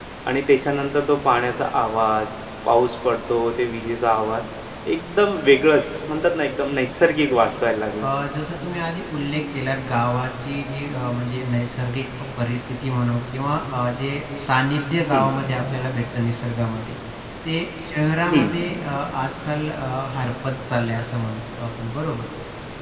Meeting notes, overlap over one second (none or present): none